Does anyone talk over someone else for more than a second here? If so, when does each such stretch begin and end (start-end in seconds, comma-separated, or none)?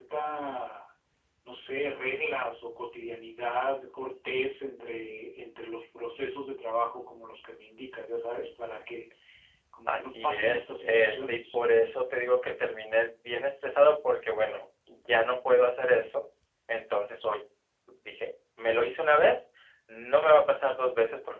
9.9-11.6